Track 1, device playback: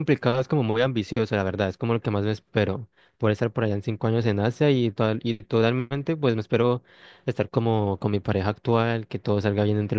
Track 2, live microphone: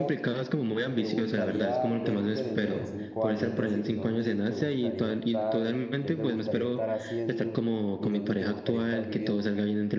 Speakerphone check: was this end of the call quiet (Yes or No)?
No